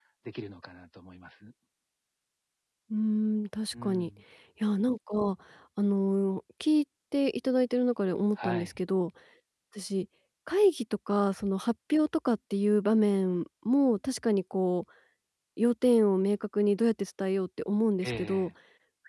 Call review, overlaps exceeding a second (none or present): none